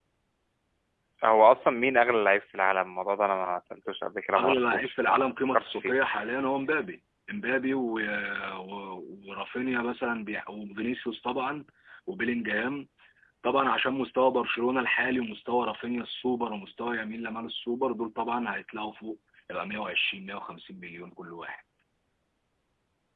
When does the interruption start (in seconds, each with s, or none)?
4.3 s